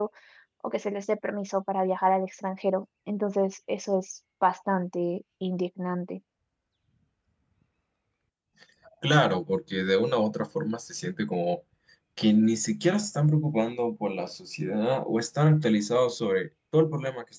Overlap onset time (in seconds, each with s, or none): none